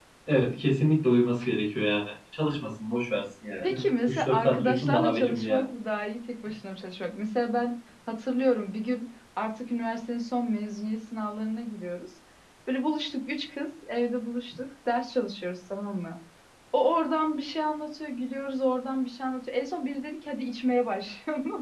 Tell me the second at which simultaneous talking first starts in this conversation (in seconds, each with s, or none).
3.6 s